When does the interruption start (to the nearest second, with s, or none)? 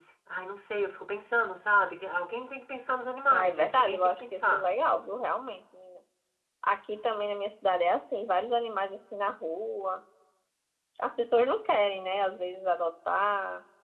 3 s